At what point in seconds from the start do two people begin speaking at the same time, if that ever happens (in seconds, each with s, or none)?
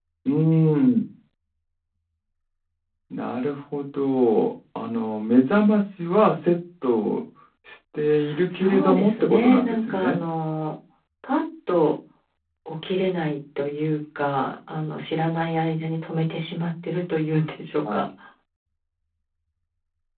8.5 s